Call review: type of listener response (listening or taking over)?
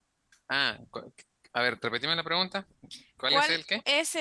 taking over